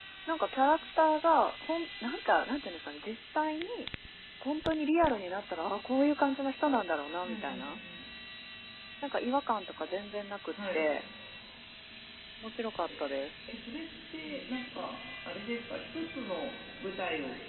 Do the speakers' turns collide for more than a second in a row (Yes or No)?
No